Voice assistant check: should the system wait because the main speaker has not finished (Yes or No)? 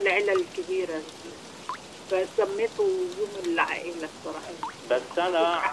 No